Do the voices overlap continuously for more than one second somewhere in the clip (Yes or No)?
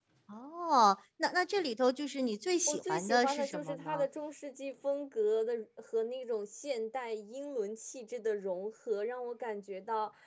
Yes